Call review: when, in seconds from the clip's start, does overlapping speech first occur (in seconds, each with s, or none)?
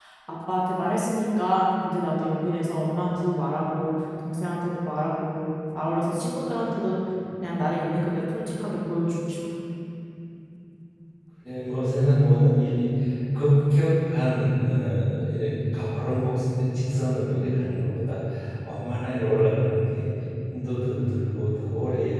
none